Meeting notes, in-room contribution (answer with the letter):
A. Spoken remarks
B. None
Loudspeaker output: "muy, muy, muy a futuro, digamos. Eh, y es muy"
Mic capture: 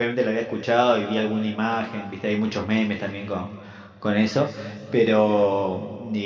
A